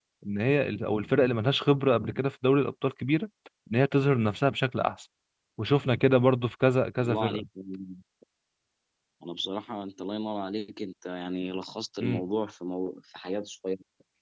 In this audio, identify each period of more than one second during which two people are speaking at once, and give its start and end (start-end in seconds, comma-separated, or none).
none